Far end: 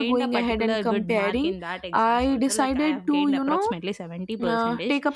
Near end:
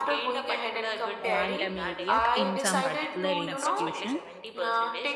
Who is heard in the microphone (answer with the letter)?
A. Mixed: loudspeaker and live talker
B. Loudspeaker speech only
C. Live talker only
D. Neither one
A